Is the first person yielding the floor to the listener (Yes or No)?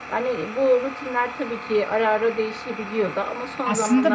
Yes